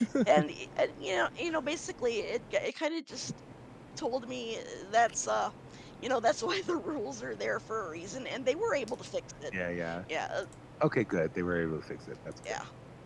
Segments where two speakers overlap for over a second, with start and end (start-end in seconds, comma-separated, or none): none